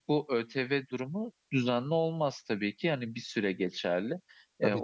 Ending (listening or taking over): listening